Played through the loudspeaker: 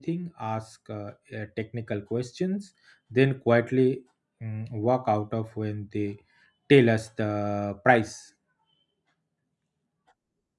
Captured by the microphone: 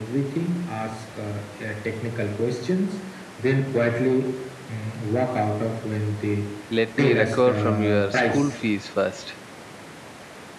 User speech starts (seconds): 6.7 s

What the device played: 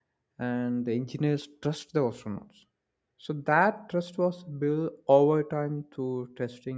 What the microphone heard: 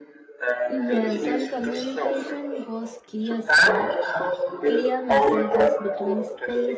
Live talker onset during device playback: 0.6 s

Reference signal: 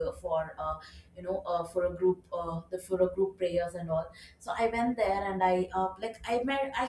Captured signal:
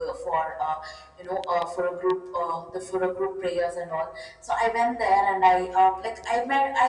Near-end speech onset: none

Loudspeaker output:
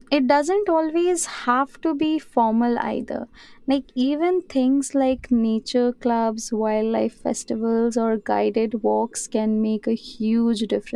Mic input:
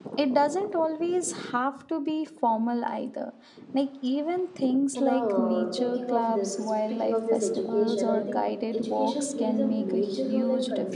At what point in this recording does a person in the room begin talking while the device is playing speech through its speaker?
5.0 s

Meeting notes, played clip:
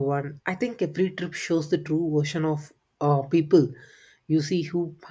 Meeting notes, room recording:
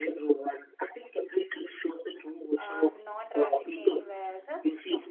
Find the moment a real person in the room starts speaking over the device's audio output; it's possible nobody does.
2.6 s

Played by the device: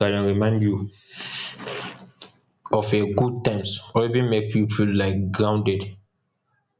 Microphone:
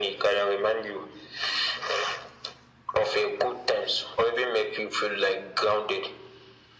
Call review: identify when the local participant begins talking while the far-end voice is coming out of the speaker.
none

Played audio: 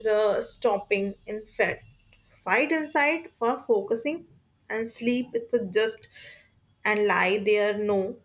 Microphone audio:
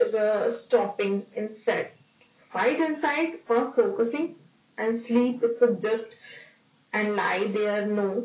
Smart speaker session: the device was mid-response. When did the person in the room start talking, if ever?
none

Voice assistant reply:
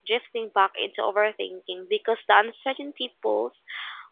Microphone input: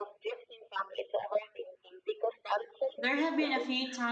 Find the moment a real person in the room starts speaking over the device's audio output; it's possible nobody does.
3.0 s

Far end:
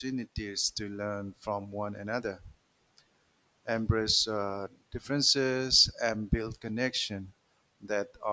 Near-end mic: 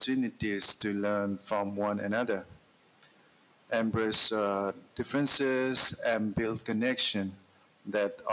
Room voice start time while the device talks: none

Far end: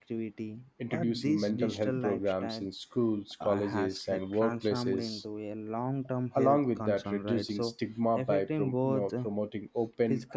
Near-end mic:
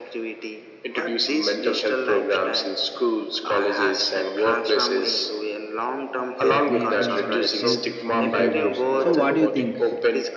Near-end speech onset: 6.7 s

